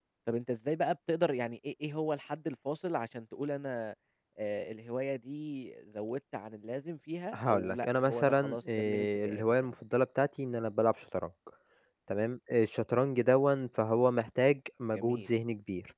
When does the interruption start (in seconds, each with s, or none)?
7.3 s